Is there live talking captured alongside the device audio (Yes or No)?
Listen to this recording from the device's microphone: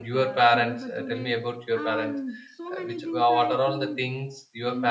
Yes